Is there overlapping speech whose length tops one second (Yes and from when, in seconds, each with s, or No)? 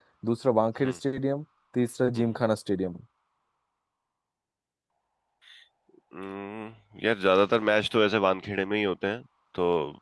No